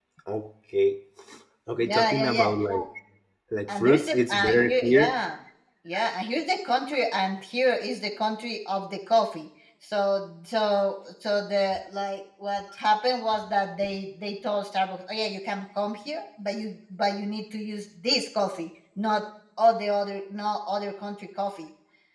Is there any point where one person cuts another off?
Yes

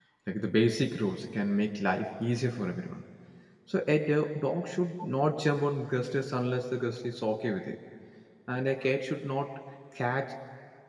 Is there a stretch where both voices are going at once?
No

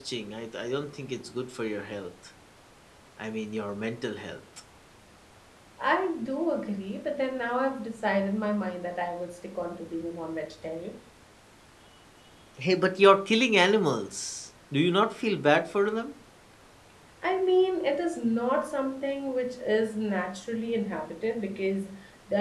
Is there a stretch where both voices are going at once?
No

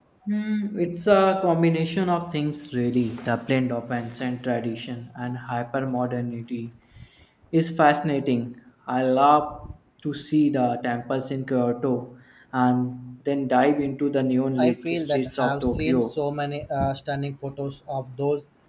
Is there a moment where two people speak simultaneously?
Yes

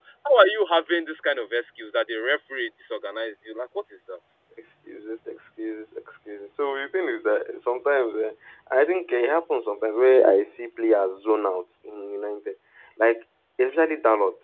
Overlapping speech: No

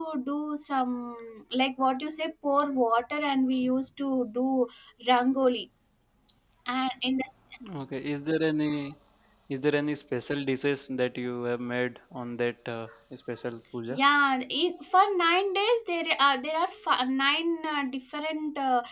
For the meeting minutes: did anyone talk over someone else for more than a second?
No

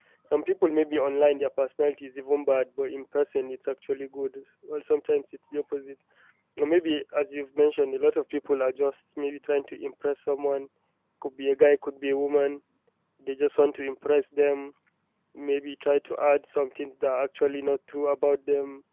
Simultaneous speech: No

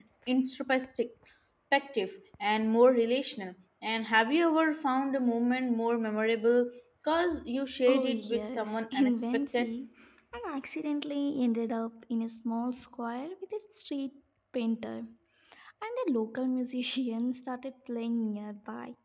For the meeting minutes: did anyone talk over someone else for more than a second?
Yes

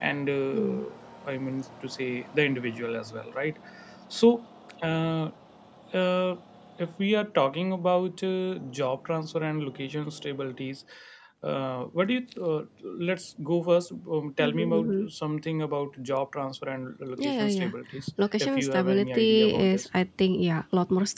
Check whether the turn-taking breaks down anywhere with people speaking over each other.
Yes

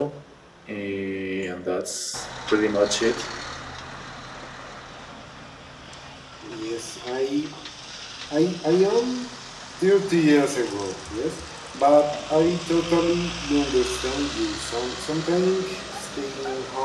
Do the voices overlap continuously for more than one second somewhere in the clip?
No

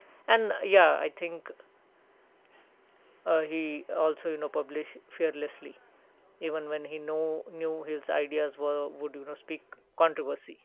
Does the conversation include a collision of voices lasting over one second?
No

